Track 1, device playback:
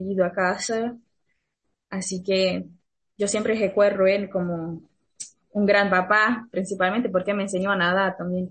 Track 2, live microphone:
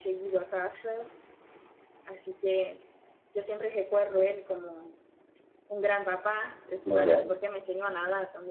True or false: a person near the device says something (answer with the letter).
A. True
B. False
A